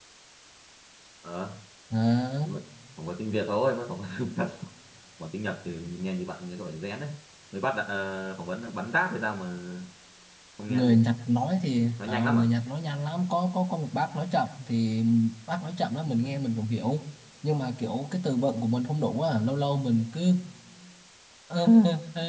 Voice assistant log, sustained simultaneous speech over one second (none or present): none